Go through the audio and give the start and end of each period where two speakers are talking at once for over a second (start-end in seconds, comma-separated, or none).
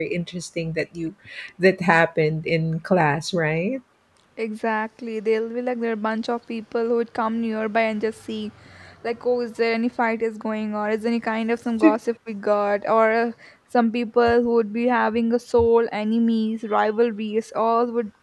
none